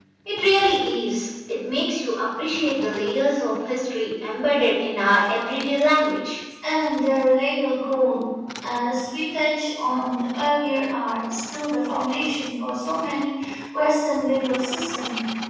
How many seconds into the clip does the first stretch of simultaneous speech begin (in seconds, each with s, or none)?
none